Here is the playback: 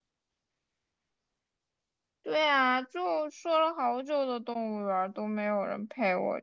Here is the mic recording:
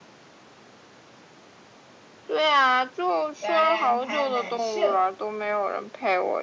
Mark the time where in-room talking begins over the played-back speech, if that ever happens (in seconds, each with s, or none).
3.4 s